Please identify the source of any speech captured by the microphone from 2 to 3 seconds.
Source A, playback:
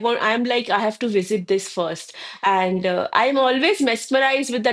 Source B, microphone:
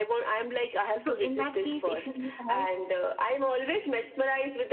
both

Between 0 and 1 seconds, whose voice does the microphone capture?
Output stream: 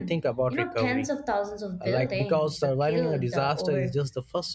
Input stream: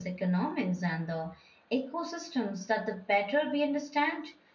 user only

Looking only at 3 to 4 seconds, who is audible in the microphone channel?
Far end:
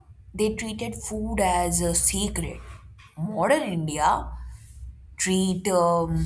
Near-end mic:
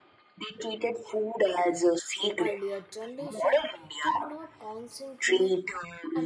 both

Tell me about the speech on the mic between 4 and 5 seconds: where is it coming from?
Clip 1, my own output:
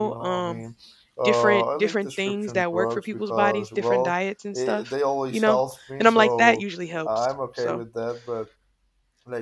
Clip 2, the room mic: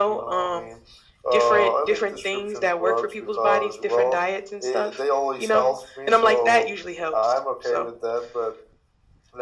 echo only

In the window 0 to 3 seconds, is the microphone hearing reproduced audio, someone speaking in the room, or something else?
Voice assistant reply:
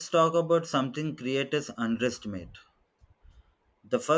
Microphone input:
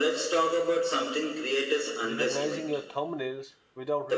both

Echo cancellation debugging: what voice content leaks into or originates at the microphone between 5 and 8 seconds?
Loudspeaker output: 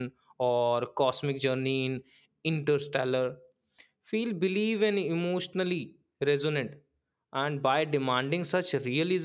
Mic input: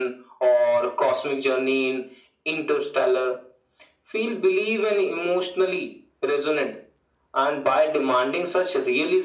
echo only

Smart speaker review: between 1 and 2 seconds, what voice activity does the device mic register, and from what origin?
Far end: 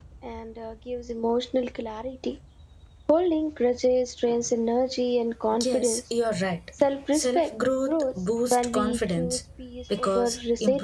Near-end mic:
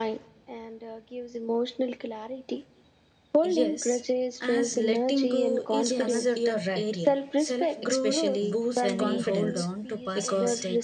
echo only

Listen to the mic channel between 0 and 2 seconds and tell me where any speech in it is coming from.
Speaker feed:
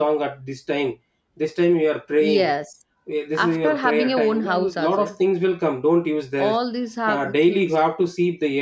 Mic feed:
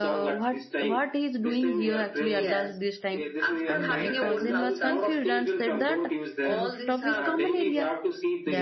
both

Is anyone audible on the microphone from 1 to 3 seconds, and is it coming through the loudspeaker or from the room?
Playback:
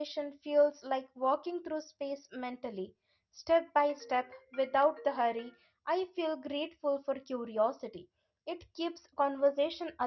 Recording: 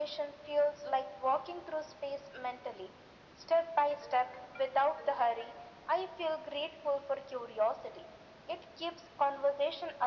echo only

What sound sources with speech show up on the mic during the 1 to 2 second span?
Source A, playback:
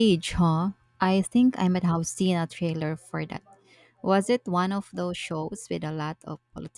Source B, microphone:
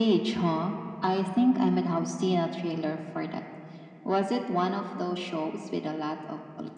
echo only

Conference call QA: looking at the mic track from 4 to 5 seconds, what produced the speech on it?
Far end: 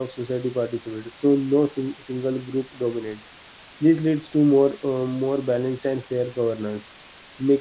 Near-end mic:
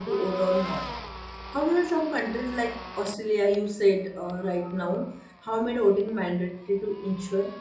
user only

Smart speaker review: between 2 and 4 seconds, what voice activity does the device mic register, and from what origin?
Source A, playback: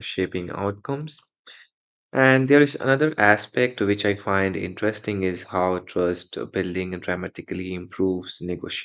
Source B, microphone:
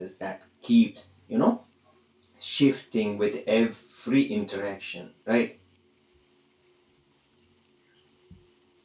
user only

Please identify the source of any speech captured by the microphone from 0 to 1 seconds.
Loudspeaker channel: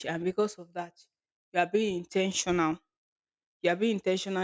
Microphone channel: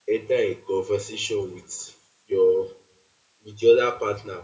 user only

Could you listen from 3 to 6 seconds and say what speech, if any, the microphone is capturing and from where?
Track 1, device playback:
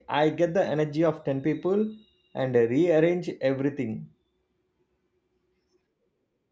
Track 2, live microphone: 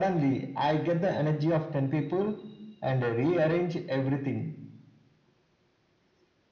echo only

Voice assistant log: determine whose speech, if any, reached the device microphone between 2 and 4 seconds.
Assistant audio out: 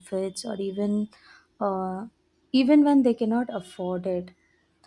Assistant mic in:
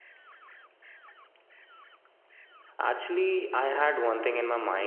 user only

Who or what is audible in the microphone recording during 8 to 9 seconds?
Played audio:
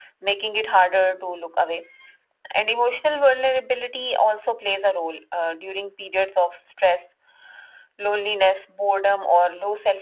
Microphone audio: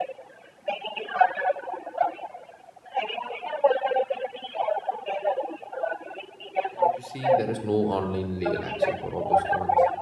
both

